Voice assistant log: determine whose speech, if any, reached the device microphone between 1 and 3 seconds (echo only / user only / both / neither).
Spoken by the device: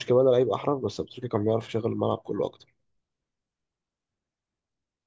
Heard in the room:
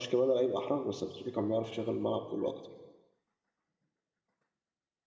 echo only